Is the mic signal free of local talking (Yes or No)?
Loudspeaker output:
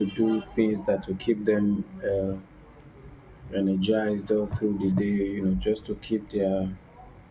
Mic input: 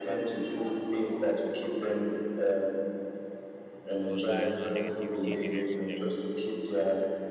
No